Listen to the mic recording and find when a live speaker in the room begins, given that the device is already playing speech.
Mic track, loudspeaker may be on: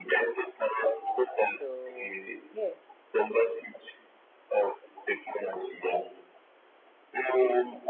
1.3 s

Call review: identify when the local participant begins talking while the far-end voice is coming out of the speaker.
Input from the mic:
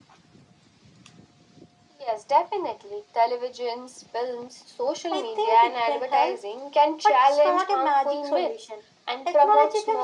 none

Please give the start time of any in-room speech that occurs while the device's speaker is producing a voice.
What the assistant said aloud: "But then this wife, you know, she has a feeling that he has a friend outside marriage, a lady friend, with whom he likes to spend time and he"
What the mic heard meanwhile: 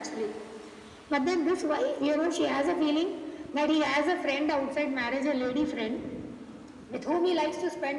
none

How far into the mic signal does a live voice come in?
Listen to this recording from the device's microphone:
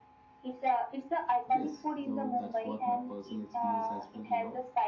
1.5 s

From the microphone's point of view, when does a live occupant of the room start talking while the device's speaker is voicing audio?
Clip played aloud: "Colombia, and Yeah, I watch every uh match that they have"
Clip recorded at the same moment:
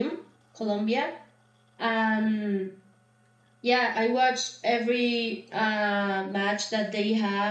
none

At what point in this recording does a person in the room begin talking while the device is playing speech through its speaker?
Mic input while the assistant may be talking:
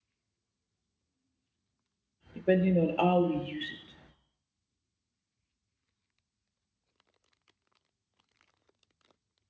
2.4 s

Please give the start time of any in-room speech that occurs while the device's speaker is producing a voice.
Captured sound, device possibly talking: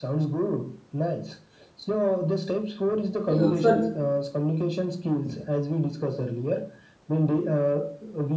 3.3 s

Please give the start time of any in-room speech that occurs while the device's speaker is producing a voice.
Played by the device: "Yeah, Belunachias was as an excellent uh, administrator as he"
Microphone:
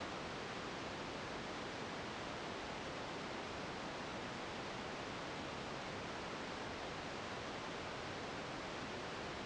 none

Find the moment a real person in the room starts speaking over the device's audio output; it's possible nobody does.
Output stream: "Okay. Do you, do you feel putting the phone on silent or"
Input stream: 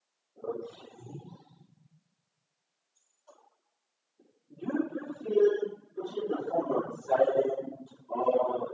none

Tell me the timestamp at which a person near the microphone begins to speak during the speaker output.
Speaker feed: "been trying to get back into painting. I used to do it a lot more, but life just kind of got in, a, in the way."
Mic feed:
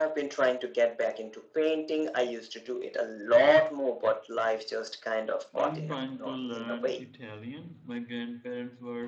5.6 s

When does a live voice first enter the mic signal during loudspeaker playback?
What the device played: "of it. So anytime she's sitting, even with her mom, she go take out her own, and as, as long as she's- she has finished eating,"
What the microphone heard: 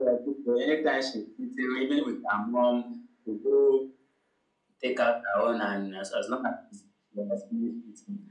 none

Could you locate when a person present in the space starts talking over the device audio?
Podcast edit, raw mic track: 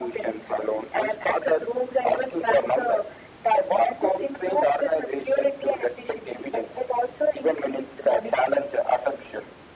none

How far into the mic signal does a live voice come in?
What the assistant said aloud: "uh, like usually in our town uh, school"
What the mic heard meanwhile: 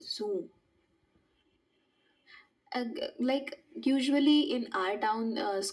none

